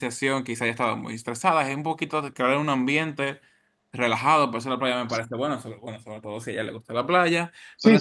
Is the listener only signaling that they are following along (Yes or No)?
No